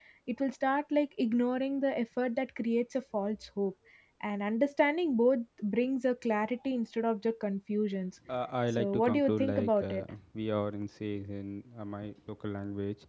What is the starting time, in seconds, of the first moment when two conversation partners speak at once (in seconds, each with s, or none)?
8.7 s